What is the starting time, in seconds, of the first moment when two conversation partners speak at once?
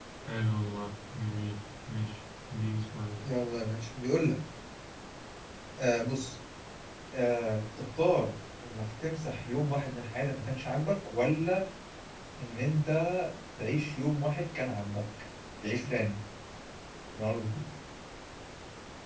none

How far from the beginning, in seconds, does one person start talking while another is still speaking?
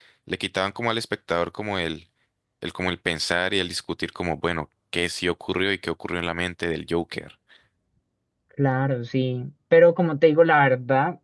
none

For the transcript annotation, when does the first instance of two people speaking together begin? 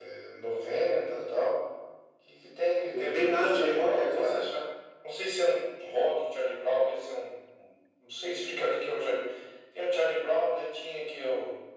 2.9 s

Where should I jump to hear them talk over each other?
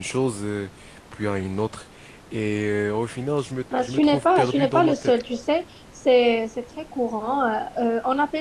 3.7 s

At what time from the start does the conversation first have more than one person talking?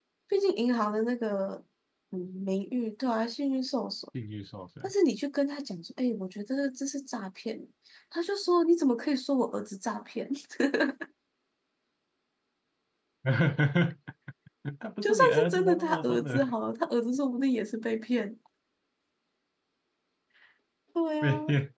15.0 s

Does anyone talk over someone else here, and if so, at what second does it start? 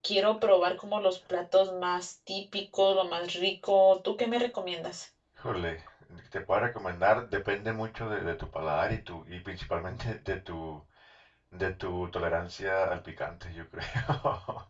none

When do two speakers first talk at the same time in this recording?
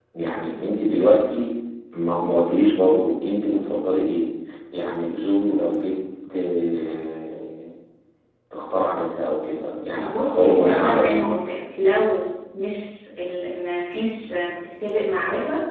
10.0 s

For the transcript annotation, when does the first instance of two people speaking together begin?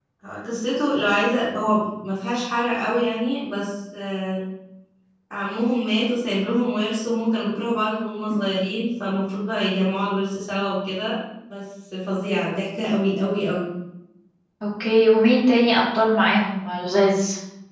none

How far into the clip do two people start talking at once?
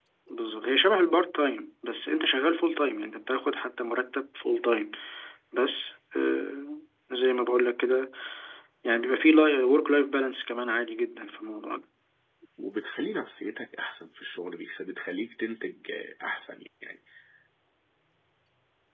none

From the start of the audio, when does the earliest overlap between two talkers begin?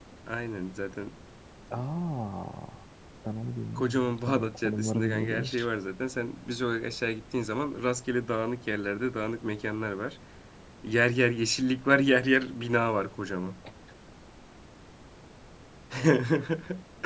3.8 s

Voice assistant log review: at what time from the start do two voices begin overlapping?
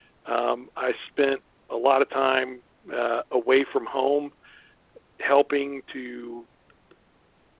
none

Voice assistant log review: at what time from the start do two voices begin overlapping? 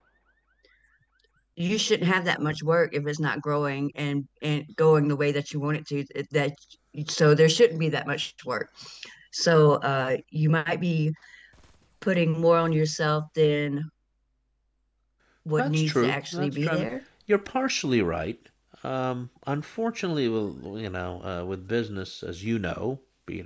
15.6 s

